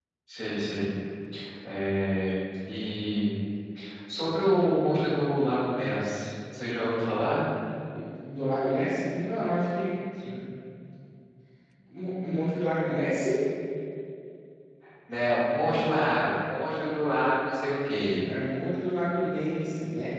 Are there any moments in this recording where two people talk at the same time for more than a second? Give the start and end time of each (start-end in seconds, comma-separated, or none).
none